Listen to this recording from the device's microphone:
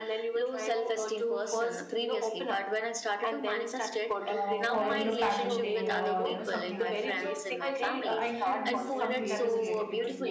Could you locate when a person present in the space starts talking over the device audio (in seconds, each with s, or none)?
4.2 s